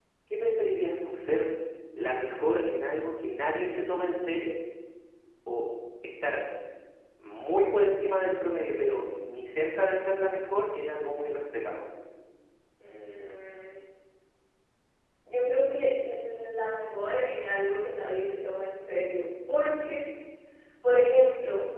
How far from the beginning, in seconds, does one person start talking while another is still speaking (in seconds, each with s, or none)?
none